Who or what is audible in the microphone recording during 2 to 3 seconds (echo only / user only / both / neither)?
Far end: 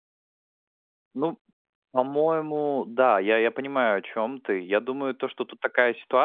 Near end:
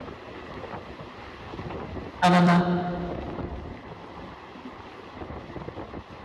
user only